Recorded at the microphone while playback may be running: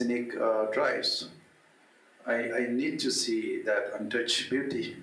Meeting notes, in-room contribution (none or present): none